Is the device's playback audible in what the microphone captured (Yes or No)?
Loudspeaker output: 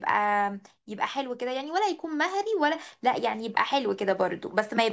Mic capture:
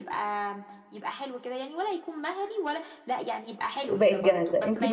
Yes